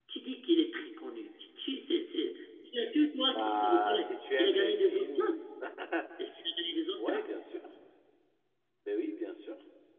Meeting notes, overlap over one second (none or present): present